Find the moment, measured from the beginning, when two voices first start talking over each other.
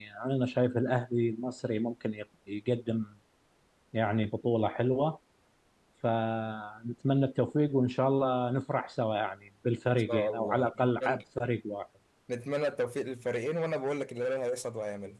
10 s

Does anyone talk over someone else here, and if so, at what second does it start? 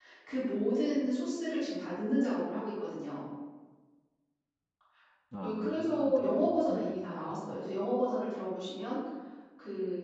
5 s

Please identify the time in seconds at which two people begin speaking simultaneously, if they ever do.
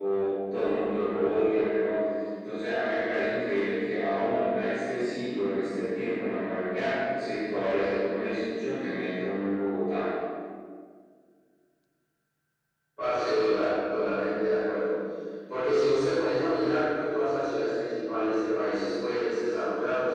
none

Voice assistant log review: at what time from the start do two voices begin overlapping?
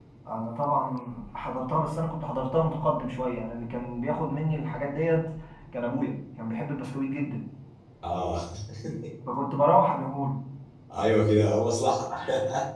none

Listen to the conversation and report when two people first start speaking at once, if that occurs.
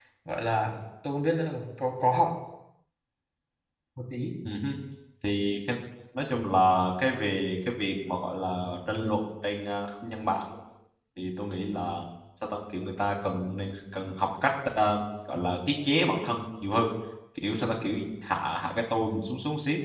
none

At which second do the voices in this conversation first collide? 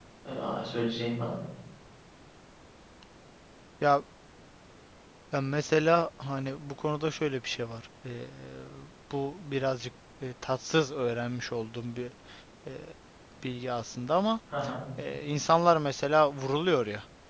none

